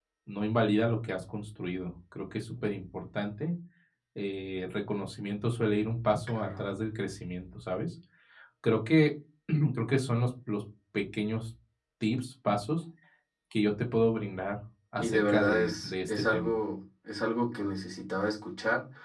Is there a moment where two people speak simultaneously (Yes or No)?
Yes